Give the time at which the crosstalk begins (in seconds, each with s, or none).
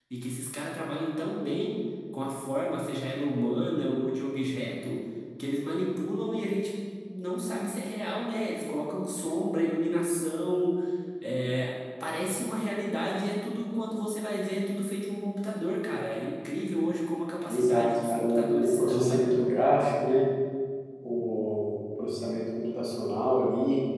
17.5 s